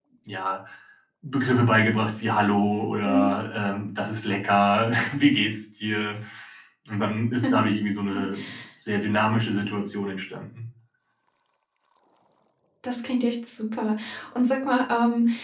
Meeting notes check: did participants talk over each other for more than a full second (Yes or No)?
No